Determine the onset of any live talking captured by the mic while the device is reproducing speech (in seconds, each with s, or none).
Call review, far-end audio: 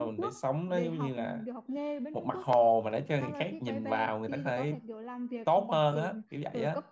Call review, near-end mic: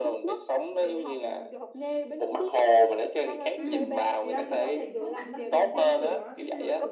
3.5 s